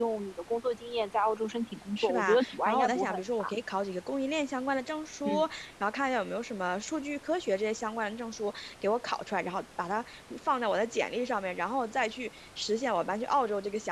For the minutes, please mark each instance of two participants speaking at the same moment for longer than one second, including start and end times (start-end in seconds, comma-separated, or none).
2.0-3.5